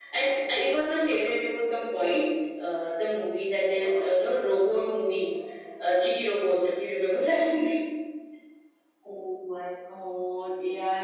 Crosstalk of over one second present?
No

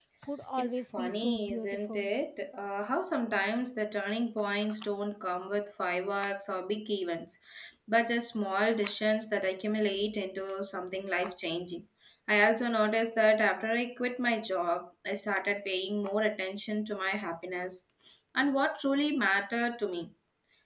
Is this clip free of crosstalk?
No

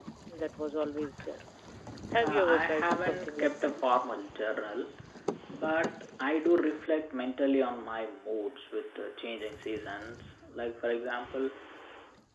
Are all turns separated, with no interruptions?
No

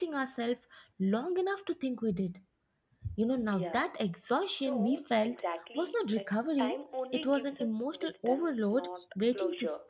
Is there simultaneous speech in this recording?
Yes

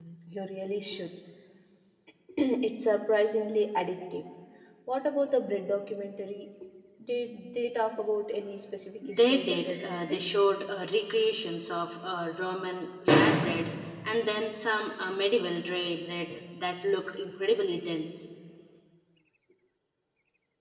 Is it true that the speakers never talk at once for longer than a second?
No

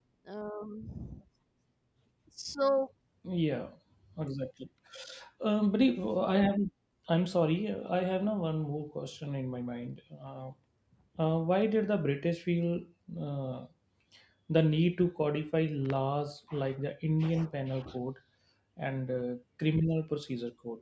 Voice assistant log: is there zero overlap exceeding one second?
Yes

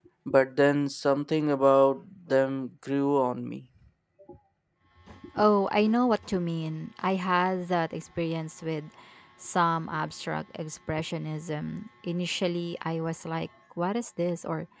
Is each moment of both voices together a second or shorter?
Yes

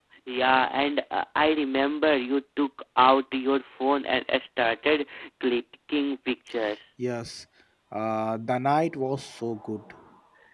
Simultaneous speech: No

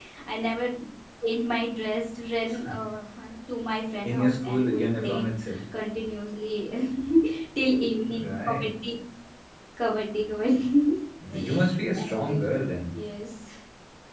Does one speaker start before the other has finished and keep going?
Yes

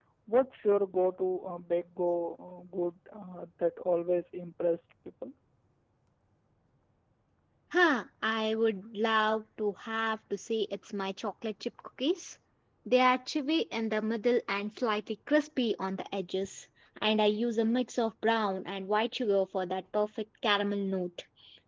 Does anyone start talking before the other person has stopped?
No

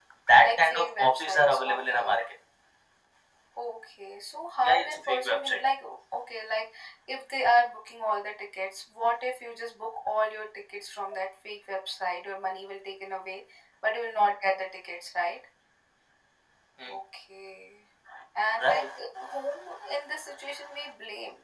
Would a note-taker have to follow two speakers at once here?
Yes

